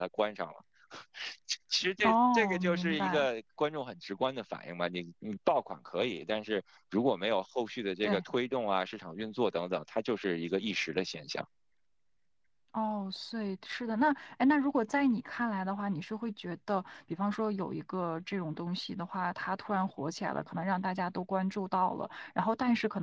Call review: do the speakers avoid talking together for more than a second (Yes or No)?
No